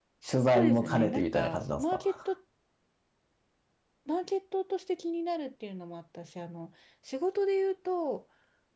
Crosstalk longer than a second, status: present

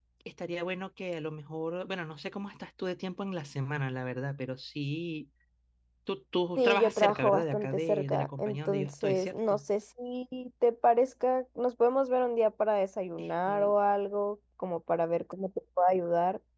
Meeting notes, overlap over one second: present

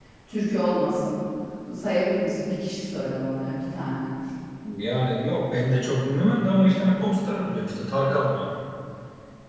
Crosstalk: none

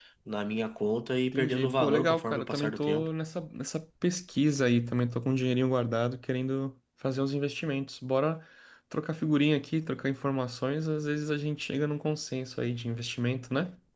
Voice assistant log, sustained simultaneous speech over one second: present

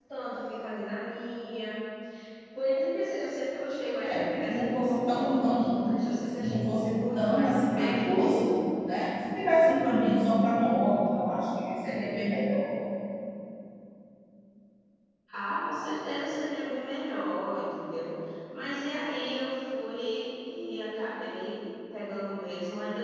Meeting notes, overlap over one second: present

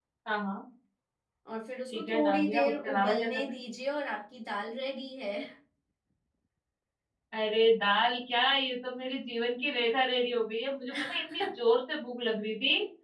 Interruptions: present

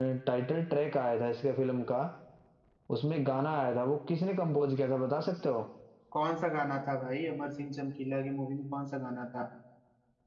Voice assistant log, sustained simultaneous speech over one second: none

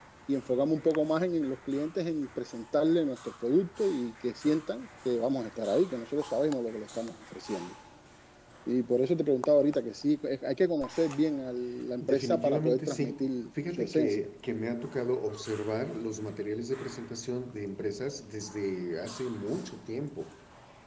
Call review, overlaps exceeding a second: present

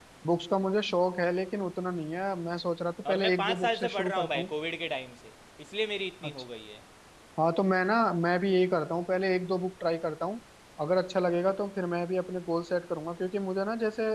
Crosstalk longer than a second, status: present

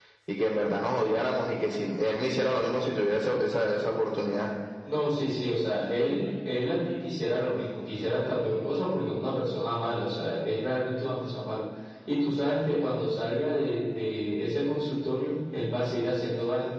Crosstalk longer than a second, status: none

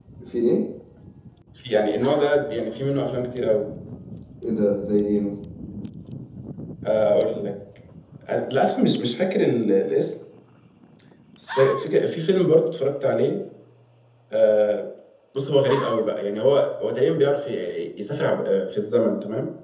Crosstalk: none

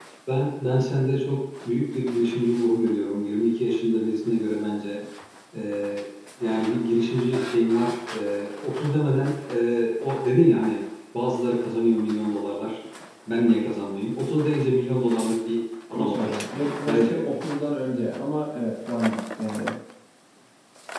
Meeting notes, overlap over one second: present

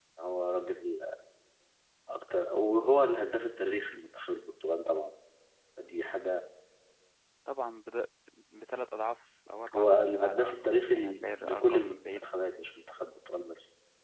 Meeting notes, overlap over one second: present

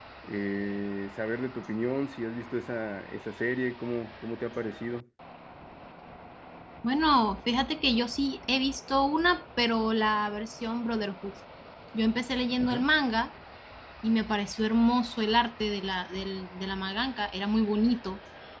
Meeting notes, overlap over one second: none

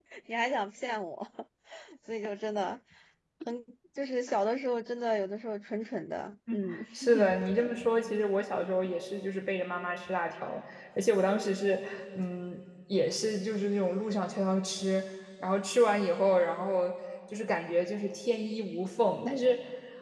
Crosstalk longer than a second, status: none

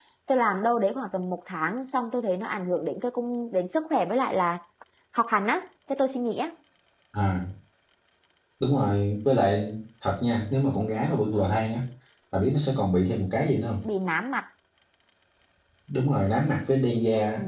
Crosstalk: none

